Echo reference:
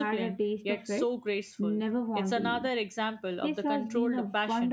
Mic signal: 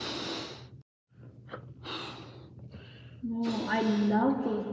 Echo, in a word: none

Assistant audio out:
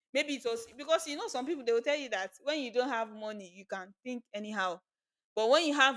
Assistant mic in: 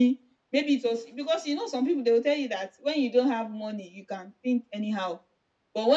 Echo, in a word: present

